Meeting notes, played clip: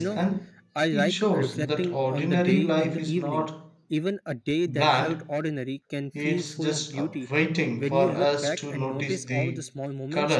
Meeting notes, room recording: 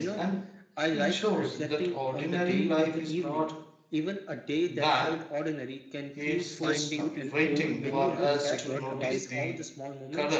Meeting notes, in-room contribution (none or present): present